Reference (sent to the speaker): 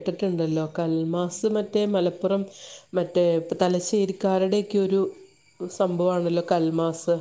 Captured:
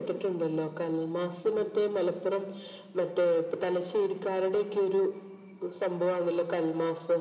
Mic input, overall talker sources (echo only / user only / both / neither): echo only